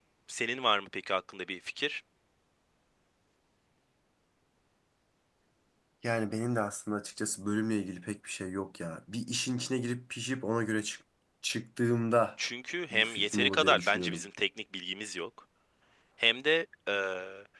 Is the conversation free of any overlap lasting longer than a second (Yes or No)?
No